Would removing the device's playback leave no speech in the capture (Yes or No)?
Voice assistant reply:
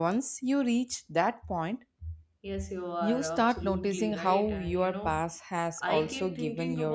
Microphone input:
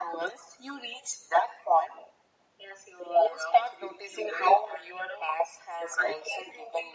Yes